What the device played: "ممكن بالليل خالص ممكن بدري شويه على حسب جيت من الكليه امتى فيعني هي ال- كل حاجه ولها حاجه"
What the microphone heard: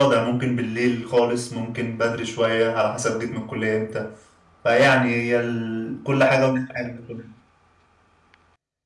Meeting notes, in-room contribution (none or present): none